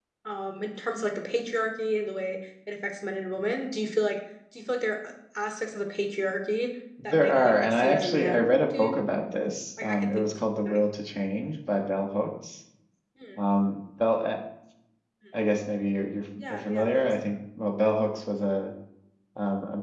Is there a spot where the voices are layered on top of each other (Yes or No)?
Yes